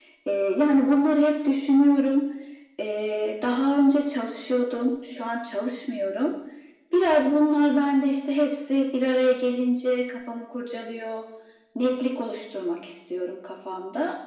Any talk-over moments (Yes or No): No